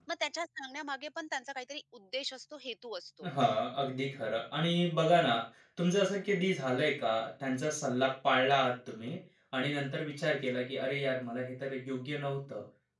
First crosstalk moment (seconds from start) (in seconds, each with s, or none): none